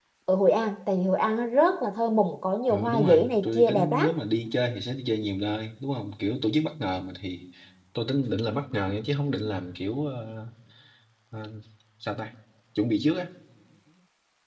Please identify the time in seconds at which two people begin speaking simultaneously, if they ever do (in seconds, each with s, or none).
2.7 s